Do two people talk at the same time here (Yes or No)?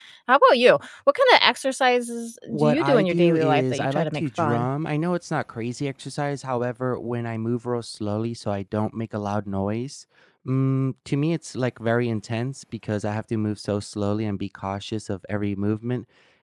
Yes